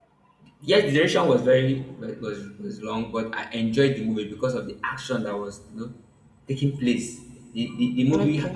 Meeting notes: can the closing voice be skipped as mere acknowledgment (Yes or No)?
Yes